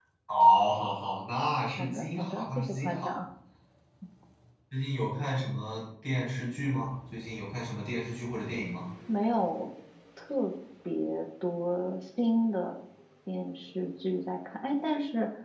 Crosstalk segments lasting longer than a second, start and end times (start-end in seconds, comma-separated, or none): 1.8-3.2